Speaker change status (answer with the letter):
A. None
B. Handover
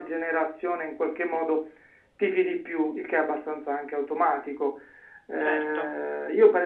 A